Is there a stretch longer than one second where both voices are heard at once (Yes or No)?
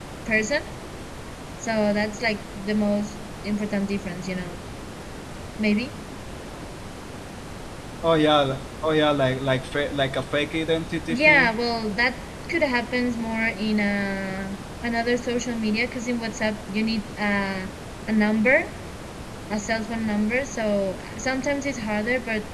No